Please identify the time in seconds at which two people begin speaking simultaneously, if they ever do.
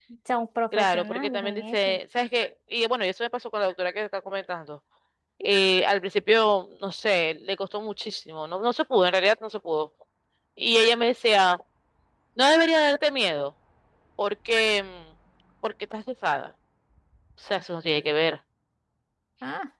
0.7 s

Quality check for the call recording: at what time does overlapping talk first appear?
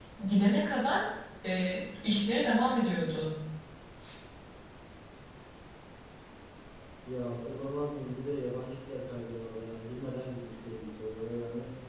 none

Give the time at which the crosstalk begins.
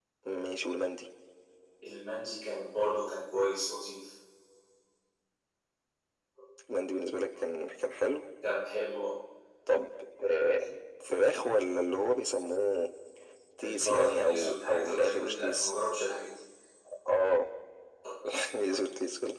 13.6 s

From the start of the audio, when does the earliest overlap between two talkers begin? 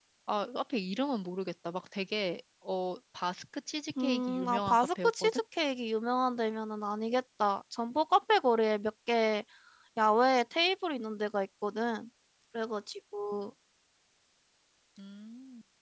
4.0 s

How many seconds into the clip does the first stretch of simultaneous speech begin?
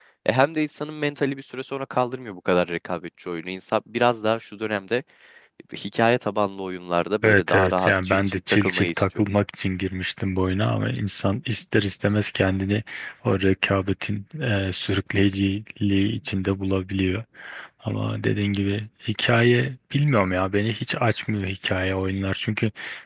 7.2 s

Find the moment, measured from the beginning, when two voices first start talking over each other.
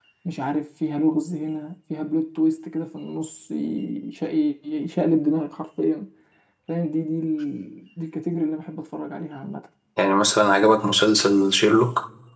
none

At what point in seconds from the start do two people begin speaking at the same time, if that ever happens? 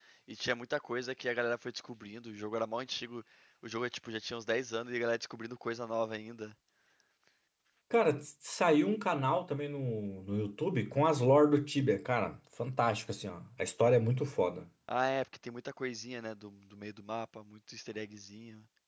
none

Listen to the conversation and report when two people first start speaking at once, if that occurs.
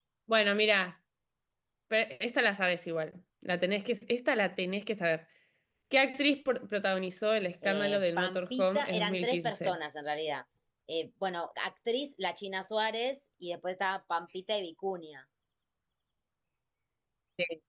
7.6 s

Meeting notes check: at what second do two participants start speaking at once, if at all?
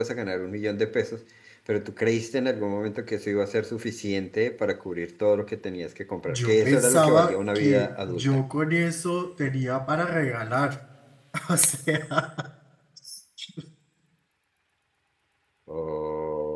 6.2 s

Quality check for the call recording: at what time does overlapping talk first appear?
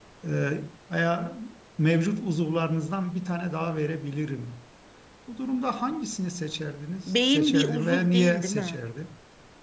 7.1 s

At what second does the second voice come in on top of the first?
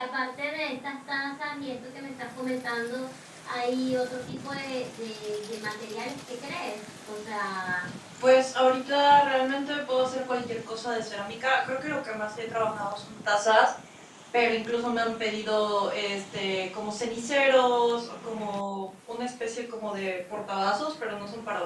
none

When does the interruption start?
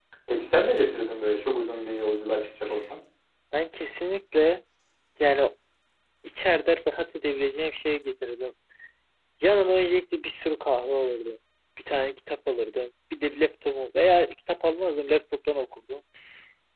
none

